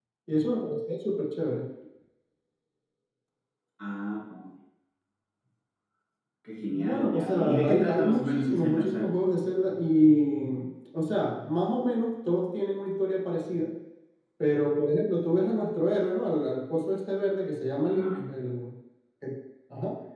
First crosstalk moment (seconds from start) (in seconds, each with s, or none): 6.7 s